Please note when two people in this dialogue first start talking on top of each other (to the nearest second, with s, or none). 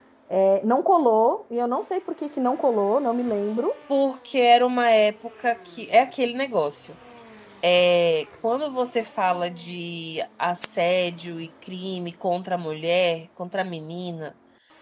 none